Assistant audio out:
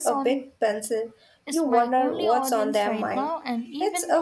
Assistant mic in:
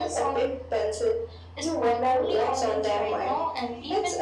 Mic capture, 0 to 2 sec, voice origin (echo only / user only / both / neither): echo only